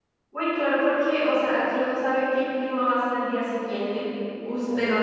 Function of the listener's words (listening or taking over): listening